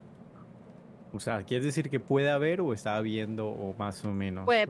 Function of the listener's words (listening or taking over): taking over